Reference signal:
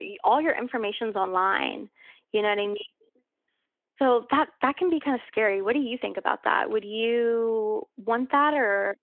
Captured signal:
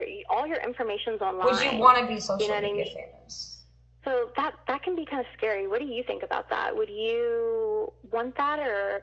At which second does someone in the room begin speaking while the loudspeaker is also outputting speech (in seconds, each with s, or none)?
1.4 s